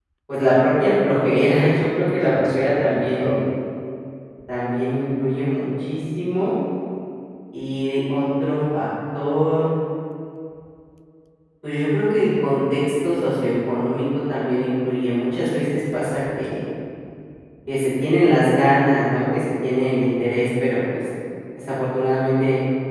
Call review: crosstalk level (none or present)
present